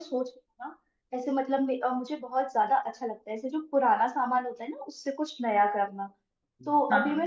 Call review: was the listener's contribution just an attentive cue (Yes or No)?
Yes